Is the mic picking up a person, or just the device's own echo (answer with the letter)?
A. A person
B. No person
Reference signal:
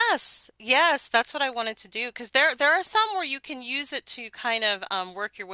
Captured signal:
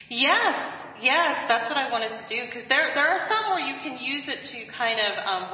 B